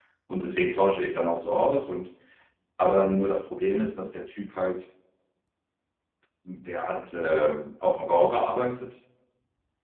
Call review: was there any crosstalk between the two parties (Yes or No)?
No